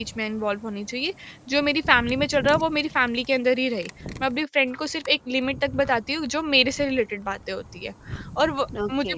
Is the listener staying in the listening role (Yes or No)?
Yes